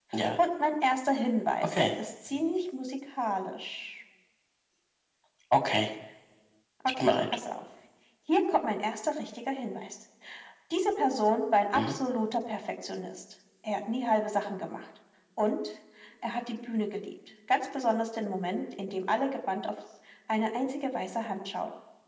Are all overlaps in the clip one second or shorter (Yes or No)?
Yes